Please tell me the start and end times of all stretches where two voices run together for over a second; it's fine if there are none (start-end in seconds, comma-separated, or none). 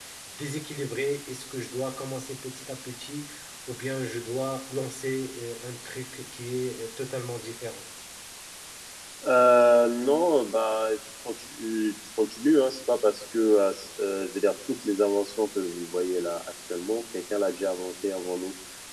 none